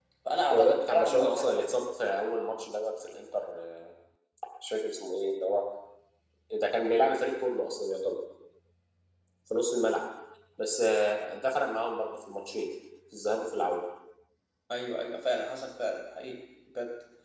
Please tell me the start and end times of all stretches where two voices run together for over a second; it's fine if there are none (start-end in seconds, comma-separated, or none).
0.5-1.7